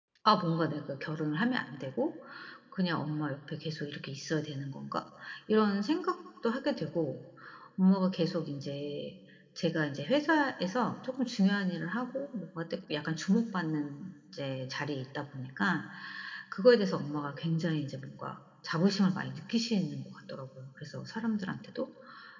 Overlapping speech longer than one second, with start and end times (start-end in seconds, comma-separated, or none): none